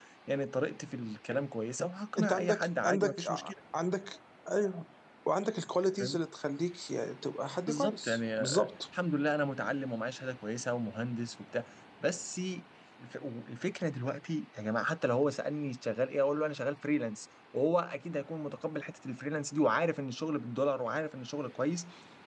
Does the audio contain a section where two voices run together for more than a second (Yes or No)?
Yes